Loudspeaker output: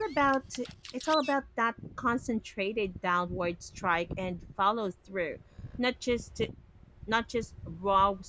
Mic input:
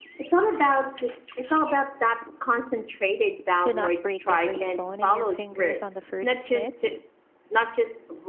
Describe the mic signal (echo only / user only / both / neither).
both